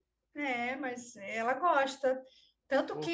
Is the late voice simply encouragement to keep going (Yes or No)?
Yes